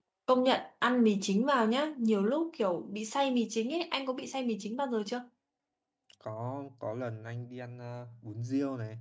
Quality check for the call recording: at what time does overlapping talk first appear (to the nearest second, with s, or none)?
none